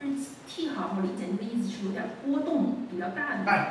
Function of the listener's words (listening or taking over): taking over